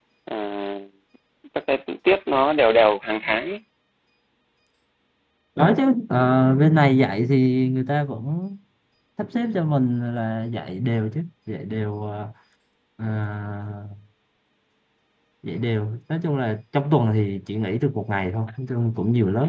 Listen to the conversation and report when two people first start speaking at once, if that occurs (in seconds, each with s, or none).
none